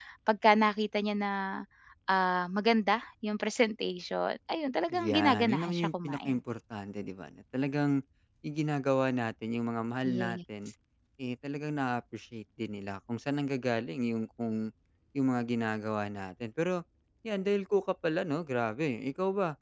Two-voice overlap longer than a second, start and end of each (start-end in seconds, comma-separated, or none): 4.9-6.4